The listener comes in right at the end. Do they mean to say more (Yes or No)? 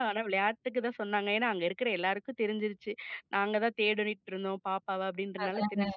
No